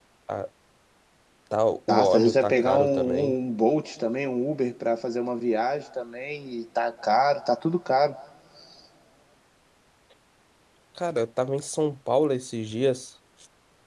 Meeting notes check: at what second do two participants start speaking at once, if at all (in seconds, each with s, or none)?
1.9 s